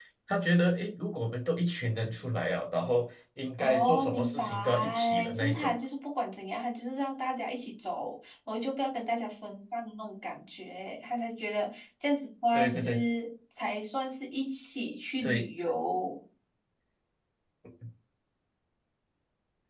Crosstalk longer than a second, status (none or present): present